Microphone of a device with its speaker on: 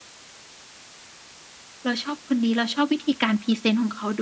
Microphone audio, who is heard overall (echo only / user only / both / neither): user only